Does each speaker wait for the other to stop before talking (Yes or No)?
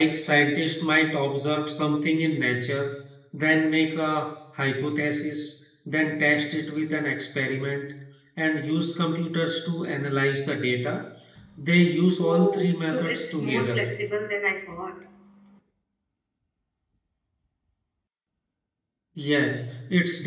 No